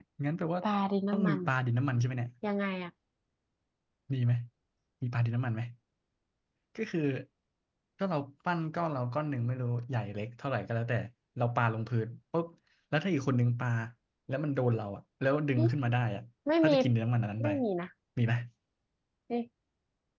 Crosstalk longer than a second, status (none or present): none